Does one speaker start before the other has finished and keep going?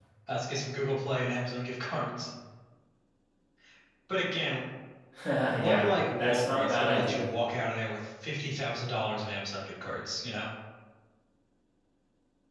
Yes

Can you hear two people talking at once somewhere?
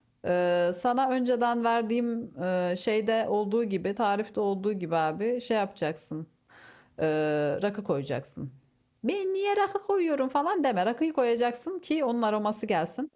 No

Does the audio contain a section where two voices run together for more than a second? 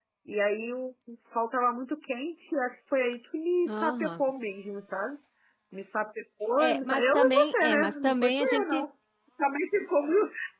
Yes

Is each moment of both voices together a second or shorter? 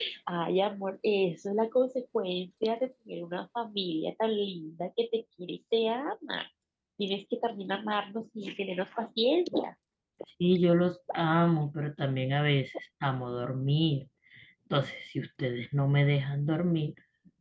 Yes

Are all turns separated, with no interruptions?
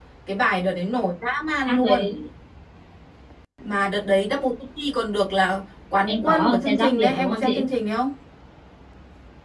No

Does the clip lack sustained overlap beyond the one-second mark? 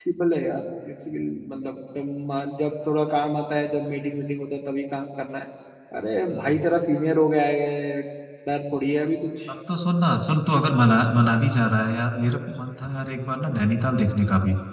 Yes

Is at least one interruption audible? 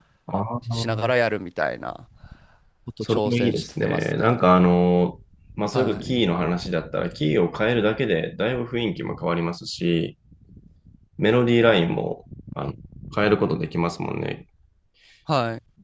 Yes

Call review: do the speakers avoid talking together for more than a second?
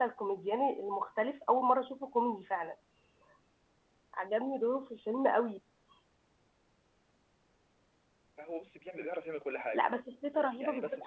Yes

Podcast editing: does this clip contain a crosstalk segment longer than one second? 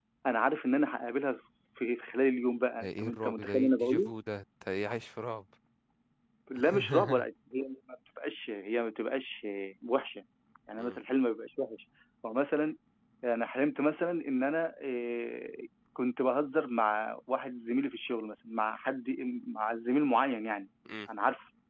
Yes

